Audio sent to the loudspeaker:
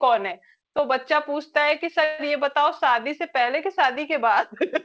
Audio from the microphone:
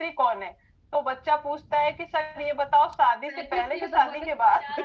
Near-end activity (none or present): present